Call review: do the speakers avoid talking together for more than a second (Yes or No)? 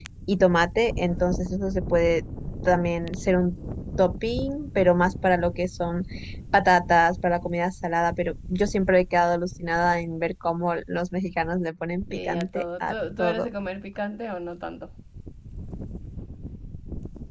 No